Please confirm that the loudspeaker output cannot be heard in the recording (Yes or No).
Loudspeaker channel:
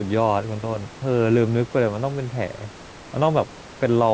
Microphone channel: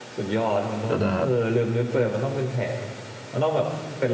No